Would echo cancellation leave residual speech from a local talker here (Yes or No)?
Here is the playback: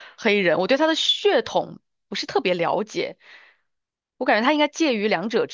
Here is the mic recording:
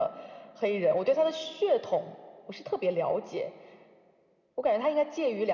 No